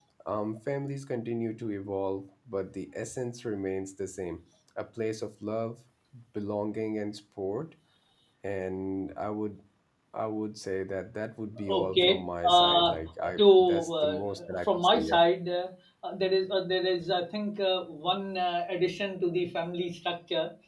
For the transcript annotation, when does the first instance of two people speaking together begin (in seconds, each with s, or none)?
11.7 s